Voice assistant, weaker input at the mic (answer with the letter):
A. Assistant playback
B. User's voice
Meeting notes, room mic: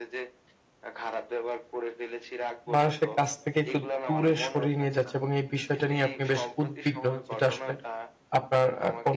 A